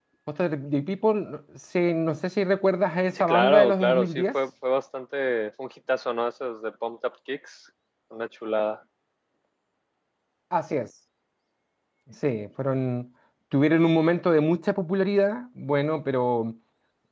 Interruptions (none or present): present